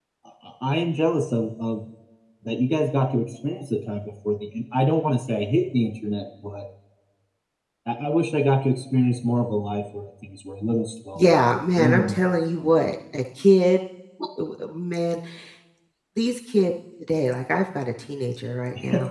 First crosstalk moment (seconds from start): 11.2 s

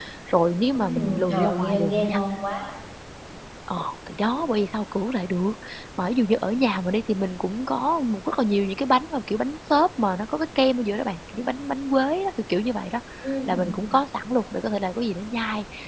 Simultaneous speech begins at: 0.7 s

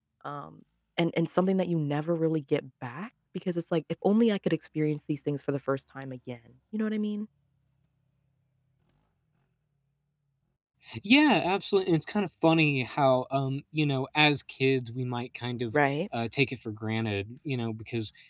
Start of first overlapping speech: none

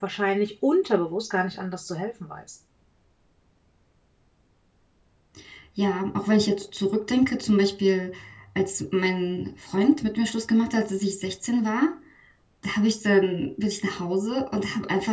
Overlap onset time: none

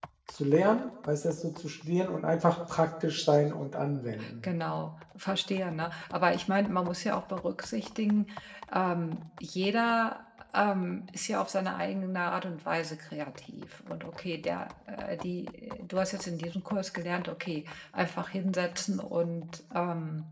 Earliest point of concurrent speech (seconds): none

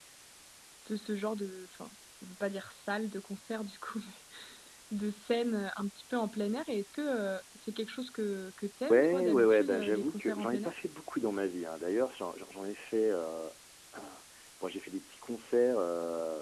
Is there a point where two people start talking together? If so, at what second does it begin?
8.9 s

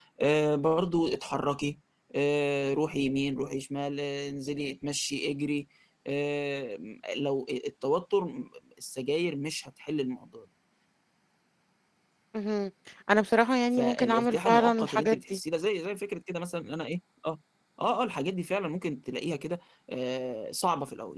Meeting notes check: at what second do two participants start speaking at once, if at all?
13.8 s

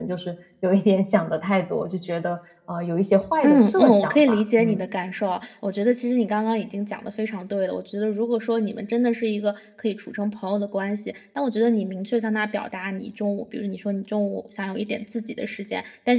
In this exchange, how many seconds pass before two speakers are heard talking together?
3.4 s

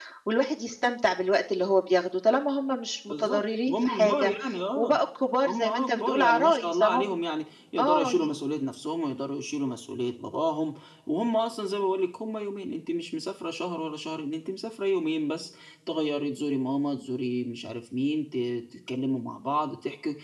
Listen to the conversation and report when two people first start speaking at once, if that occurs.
3.1 s

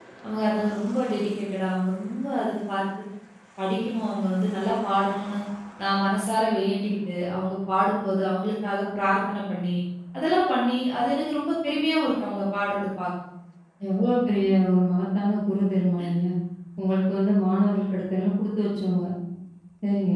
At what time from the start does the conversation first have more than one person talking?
none

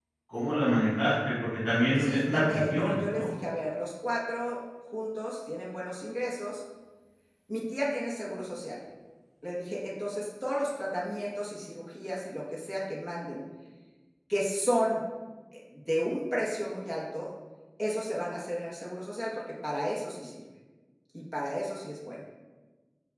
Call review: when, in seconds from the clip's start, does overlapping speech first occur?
2.0 s

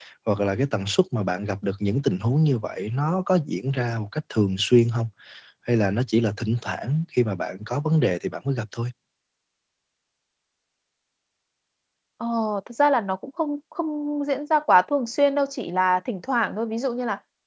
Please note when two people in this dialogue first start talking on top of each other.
none

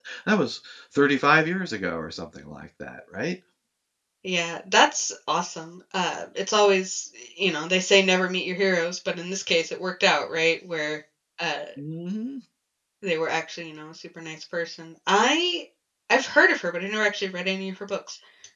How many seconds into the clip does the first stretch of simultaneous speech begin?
none

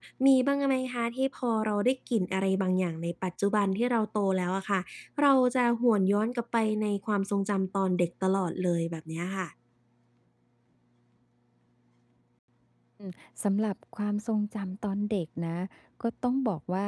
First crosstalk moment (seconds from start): none

